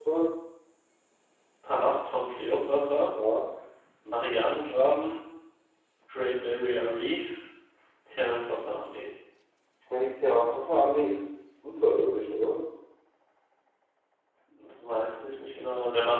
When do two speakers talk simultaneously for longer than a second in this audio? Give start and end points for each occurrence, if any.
none

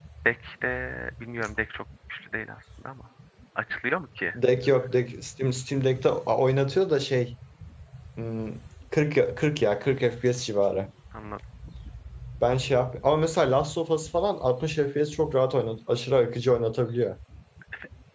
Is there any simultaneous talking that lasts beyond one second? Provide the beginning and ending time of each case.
none

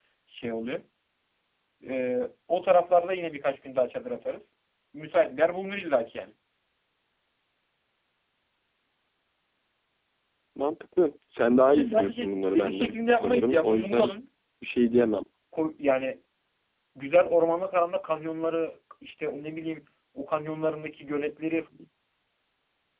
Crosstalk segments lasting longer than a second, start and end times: 11.6-14.1

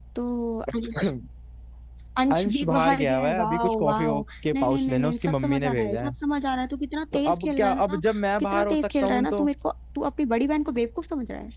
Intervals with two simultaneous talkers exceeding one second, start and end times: 2.3-4.0, 4.5-6.1, 7.1-9.5

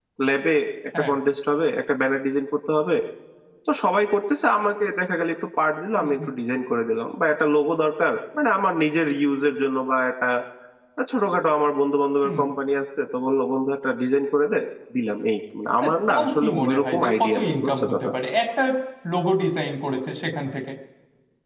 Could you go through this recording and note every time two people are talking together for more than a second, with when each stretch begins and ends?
15.8-18.1

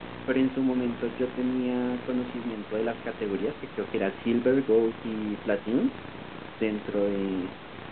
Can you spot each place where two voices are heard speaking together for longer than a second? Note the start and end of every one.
none

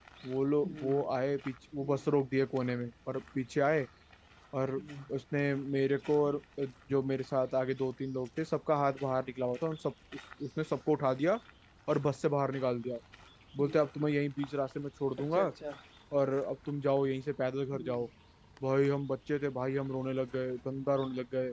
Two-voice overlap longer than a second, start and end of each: none

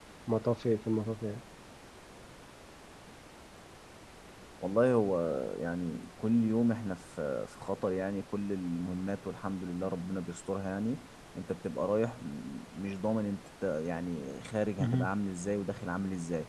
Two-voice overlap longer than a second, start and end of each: none

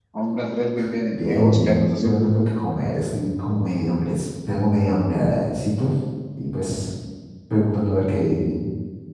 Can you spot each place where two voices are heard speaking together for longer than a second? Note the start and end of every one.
1.1-2.3

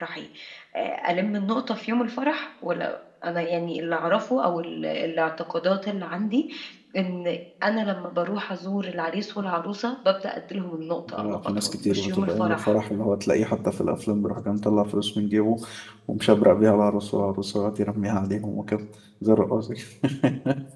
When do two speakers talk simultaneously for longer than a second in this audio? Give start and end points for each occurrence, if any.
11.2-12.8

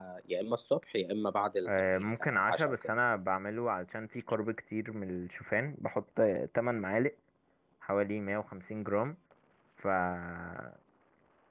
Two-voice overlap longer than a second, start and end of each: 1.6-2.9

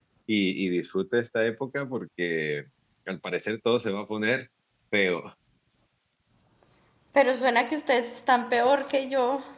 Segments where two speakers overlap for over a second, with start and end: none

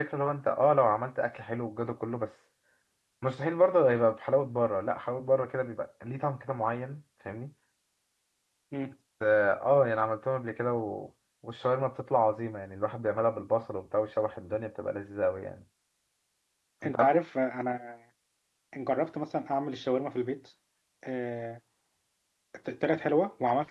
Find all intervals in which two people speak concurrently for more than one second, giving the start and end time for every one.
none

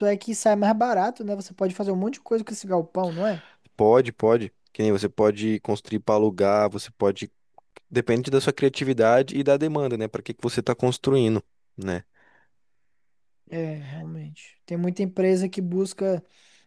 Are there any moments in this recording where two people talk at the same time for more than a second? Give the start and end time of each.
none

